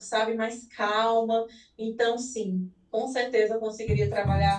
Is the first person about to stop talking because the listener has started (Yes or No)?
No